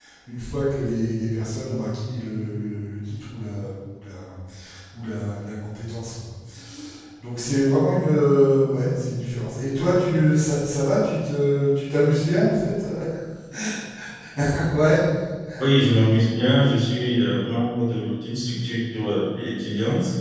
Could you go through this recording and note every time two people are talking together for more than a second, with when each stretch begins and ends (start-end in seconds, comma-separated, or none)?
none